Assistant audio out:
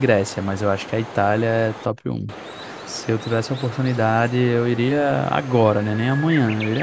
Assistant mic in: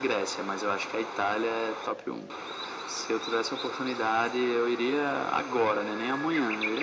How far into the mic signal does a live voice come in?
none

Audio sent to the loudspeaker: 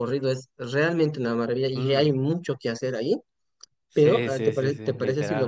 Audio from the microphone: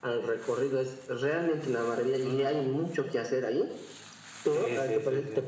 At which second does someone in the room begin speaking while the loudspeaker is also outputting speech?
none

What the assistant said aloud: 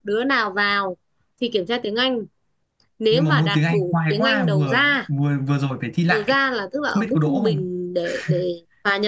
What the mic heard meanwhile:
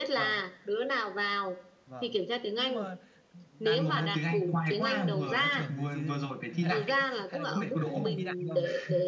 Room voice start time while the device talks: 1.9 s

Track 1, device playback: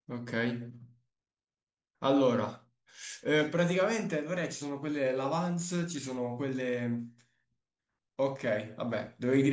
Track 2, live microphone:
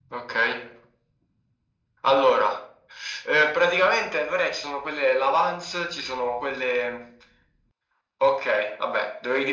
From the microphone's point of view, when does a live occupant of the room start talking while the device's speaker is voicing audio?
none

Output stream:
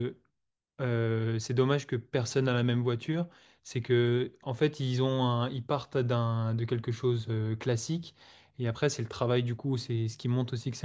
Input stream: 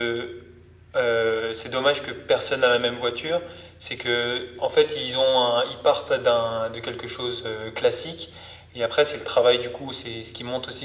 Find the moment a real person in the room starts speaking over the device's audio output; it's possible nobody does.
none

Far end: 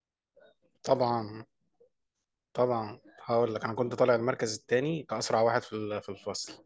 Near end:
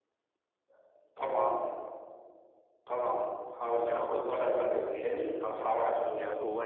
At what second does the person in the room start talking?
3.8 s

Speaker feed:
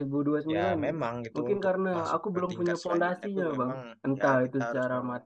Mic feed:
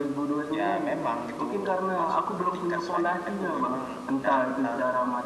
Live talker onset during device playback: none

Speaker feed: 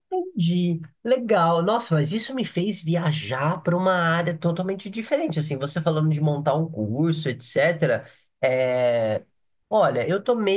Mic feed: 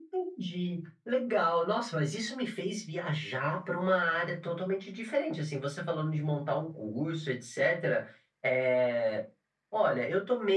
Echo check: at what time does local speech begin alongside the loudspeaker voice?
none

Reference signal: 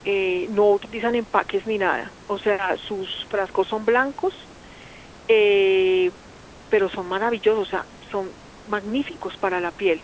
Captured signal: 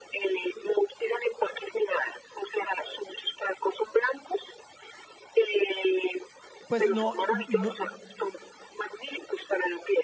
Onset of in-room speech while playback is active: 6.7 s

